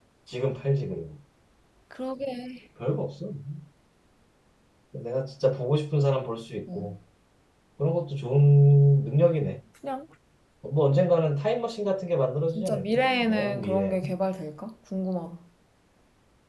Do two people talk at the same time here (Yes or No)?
Yes